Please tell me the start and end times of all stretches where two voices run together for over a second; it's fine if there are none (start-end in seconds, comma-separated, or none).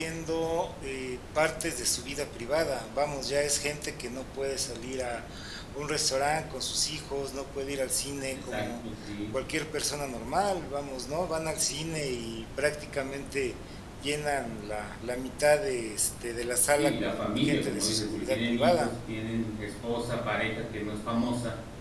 16.8-18.9